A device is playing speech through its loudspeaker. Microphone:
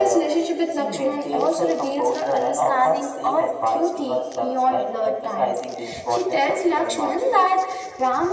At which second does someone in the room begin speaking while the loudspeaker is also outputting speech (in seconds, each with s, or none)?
none